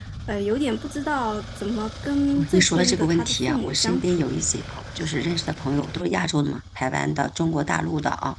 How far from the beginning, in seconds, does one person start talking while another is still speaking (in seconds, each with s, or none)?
2.4 s